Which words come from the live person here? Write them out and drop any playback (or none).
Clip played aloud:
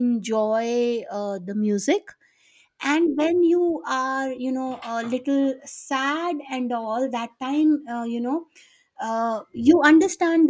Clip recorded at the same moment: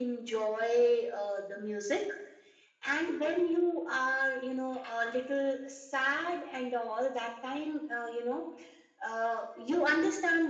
none